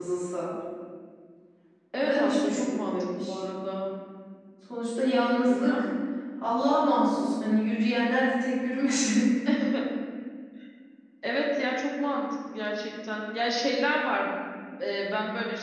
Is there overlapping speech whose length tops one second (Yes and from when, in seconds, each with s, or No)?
Yes, from 2.0 s